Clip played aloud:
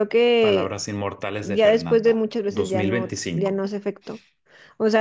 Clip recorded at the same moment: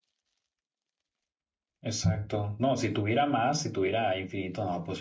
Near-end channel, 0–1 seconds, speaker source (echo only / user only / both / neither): neither